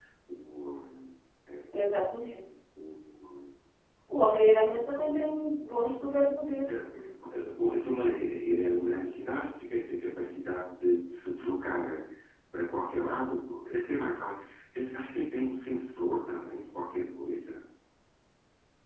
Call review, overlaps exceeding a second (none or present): none